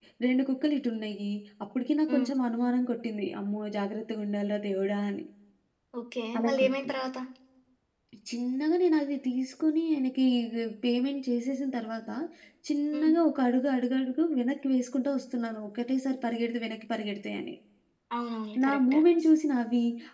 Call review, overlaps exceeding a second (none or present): none